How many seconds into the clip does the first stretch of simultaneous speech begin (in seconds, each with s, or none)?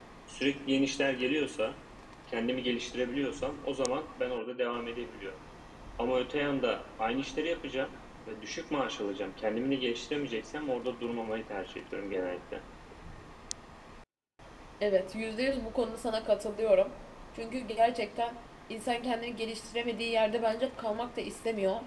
none